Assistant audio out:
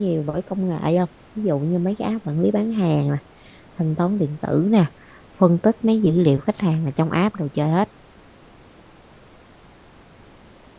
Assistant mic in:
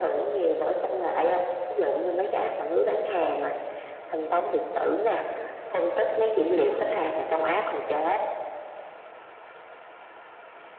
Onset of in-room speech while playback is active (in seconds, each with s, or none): none